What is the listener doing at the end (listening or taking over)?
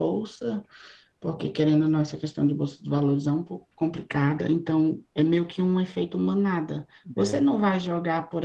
listening